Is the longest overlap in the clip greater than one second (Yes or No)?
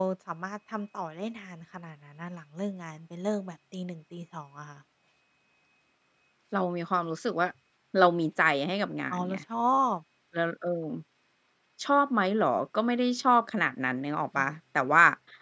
No